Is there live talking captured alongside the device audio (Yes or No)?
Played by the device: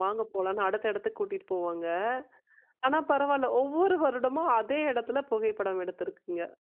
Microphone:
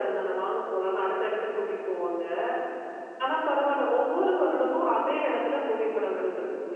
No